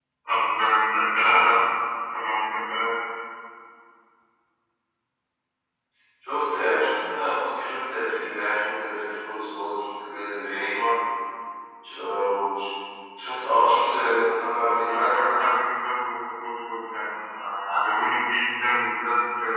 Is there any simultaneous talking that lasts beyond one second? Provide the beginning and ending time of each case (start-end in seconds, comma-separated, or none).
none